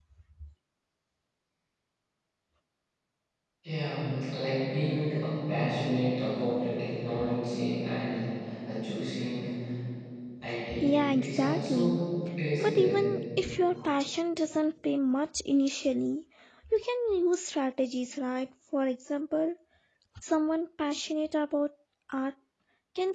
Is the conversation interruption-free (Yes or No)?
No